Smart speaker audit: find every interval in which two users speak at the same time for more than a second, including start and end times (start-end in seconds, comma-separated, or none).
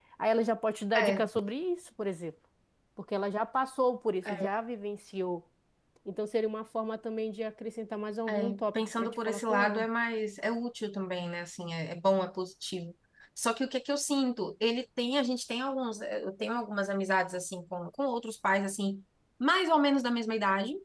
8.3-9.8